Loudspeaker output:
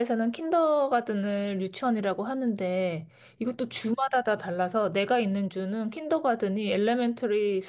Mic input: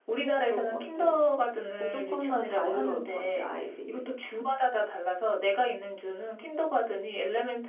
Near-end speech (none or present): present